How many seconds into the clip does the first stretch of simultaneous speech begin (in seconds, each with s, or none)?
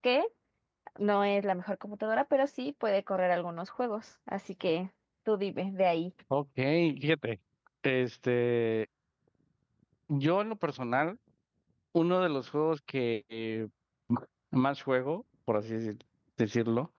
none